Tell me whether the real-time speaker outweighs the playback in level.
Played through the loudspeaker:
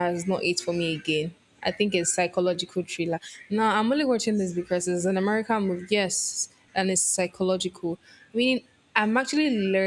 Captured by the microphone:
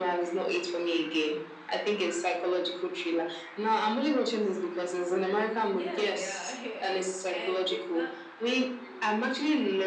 No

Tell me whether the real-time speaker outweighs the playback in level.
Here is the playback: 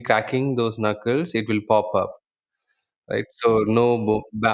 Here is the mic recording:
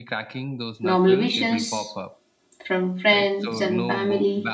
Yes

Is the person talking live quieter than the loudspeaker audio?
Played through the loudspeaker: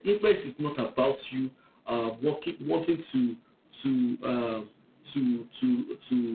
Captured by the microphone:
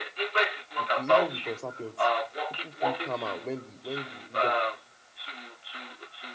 Yes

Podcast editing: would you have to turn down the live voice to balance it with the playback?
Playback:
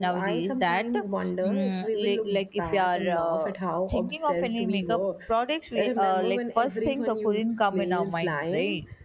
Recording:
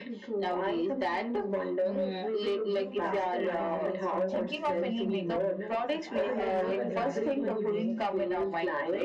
No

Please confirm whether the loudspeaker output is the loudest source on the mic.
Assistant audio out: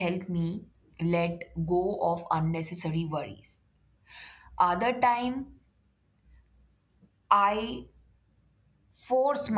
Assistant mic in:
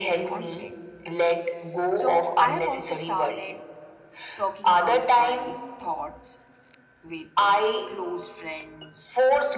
Yes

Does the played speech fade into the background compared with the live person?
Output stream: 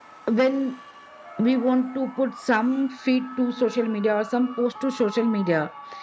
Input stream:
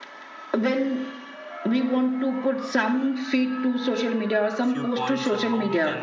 No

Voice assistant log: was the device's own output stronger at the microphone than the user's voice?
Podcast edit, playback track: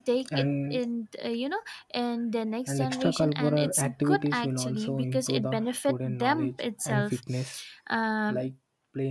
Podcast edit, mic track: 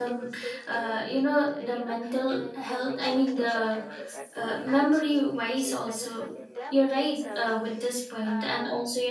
No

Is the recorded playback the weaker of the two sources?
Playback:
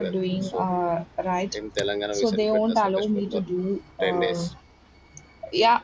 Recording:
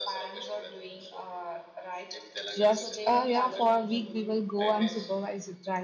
Yes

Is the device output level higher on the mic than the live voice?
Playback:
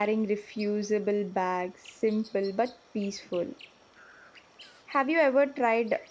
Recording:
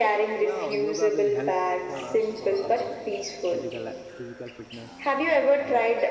Yes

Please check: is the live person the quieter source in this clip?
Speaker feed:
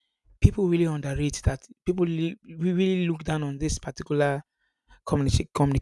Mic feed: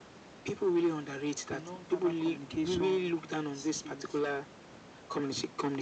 Yes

